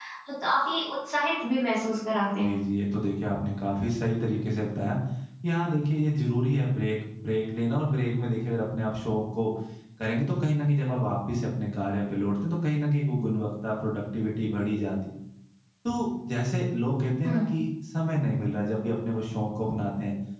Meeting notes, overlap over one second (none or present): none